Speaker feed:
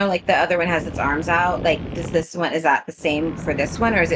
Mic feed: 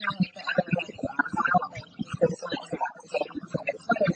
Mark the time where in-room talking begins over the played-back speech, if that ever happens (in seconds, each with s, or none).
none